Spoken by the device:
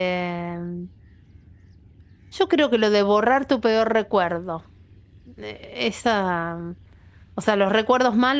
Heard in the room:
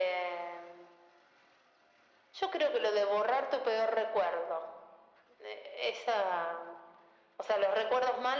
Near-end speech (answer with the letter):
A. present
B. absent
B